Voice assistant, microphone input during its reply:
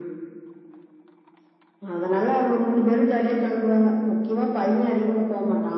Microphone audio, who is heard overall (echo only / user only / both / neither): echo only